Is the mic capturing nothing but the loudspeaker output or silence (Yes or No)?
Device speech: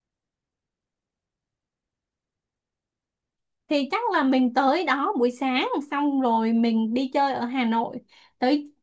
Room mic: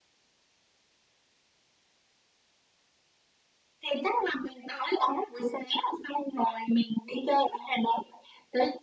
Yes